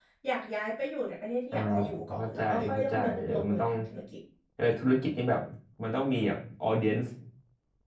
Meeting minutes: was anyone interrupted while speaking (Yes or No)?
Yes